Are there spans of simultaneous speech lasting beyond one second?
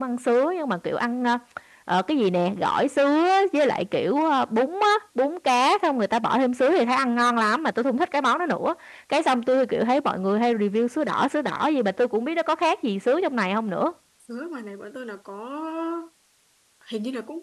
No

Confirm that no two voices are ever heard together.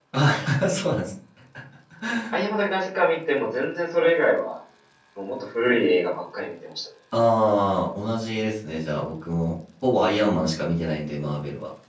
Yes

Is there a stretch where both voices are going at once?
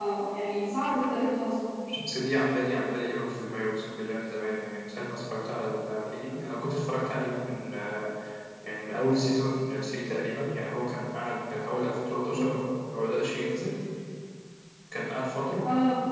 No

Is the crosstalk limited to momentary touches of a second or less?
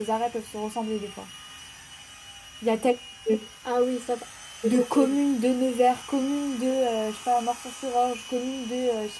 Yes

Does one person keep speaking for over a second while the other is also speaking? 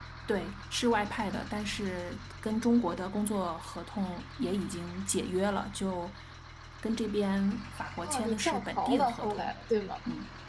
Yes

